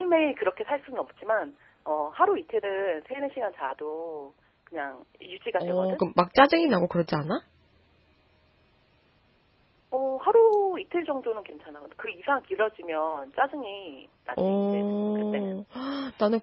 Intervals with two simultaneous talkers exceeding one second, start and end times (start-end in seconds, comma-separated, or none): 14.4-15.6